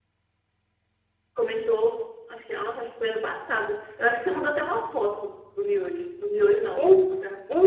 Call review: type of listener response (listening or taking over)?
taking over